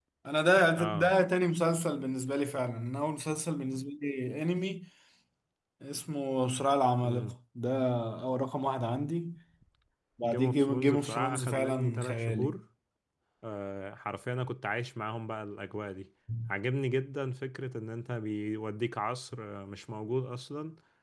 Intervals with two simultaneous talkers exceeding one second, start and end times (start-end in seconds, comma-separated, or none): 10.2-12.6